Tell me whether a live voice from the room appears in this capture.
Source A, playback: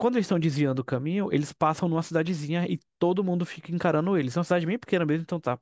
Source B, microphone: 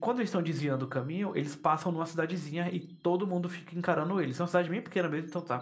No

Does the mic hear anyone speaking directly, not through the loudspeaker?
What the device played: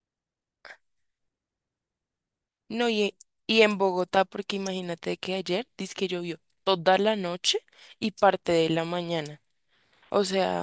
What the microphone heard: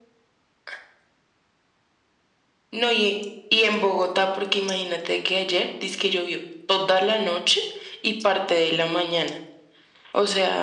No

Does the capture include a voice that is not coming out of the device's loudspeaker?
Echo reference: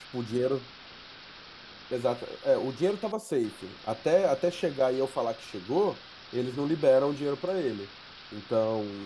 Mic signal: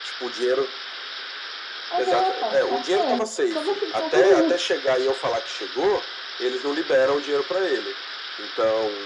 Yes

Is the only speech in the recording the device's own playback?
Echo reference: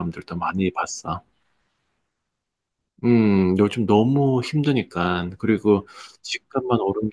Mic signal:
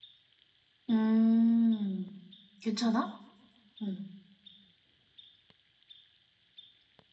No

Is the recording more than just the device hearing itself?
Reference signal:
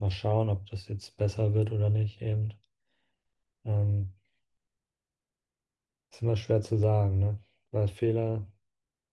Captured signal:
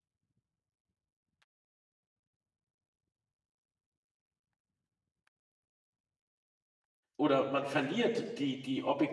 Yes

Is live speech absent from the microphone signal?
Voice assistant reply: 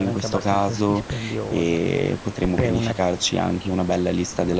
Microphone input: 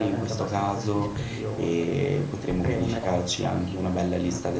No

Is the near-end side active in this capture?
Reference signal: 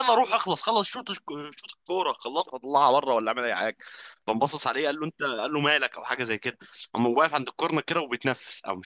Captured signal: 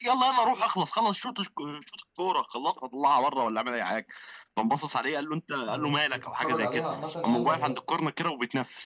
Yes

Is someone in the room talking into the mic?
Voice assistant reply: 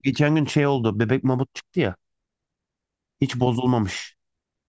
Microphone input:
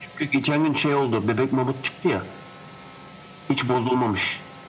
No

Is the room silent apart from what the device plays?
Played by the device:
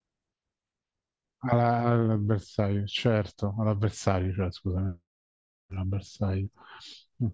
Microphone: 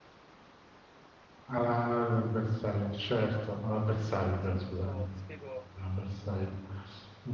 No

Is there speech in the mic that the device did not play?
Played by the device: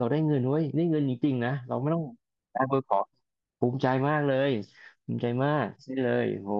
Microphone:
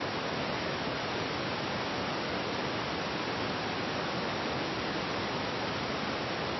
No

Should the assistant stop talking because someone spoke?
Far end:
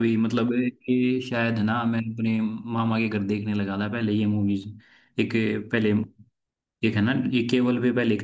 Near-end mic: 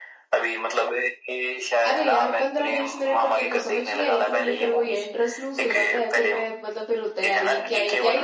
Yes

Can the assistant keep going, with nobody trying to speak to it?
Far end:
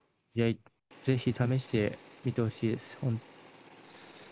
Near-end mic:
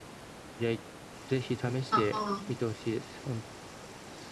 No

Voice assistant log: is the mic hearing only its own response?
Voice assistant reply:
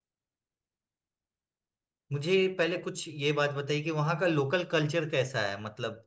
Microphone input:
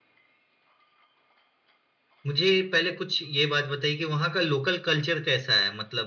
Yes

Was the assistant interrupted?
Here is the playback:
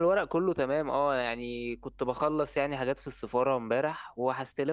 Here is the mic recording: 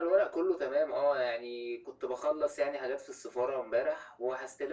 No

